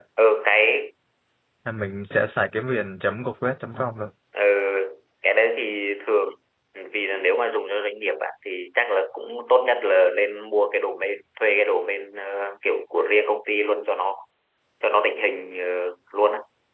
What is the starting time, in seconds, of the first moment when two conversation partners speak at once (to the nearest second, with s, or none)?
none